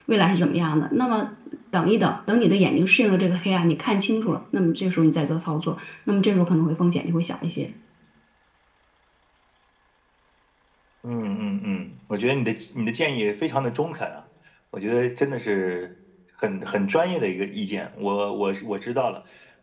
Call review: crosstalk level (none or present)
none